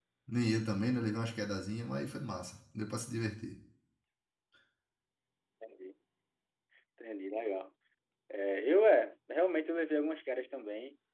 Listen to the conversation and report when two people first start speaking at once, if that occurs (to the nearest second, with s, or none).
none